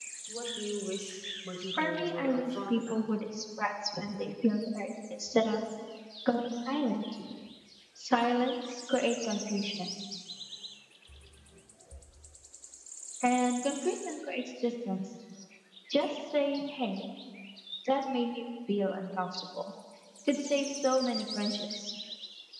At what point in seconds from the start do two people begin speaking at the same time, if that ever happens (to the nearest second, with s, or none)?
2 s